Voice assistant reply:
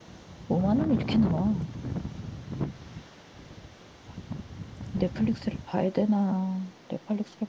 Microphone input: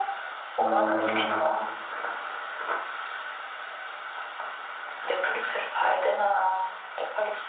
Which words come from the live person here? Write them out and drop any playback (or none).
어,